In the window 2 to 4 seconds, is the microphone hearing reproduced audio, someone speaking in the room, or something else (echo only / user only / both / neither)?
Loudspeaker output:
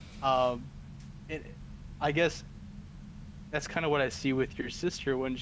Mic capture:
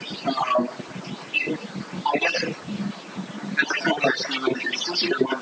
echo only